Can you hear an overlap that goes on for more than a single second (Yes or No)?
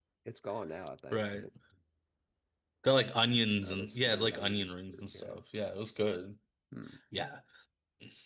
Yes